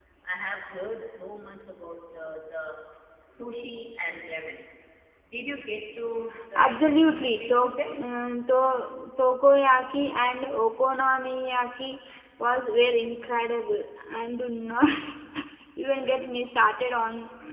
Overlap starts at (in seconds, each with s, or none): 6.6 s